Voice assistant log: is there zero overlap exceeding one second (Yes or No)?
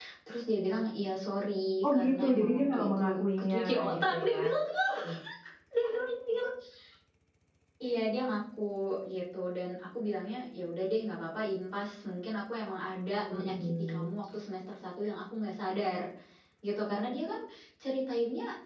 No